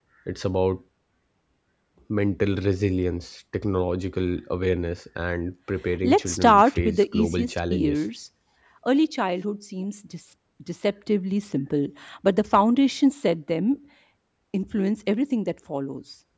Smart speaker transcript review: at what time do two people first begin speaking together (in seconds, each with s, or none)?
6.0 s